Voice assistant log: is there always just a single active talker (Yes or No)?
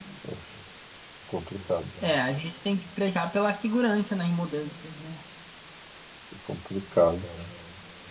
Yes